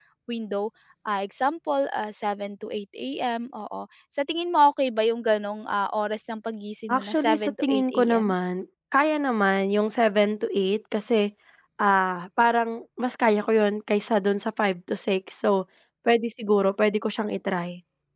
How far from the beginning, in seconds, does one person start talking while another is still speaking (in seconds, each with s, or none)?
6.9 s